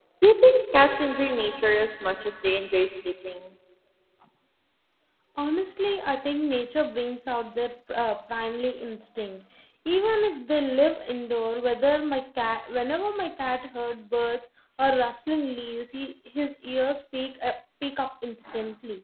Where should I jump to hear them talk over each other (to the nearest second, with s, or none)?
none